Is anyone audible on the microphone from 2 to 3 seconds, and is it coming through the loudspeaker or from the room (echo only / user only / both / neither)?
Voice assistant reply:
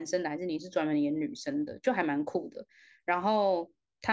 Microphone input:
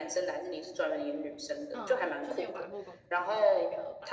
both